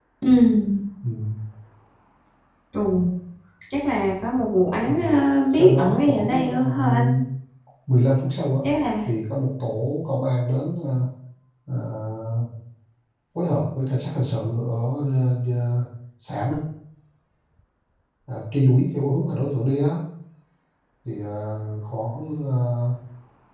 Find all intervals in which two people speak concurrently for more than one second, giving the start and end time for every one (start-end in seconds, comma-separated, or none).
5.5-7.1